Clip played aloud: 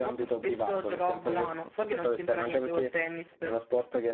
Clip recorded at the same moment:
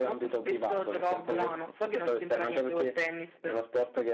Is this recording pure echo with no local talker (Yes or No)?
Yes